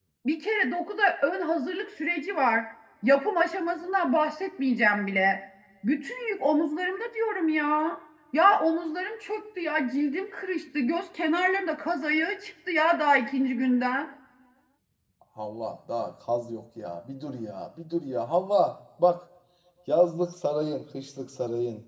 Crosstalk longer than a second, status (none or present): none